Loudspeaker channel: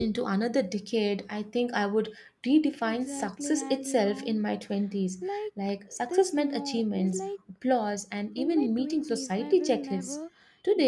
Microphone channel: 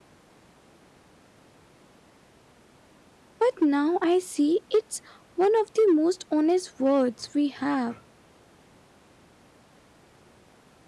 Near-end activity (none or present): present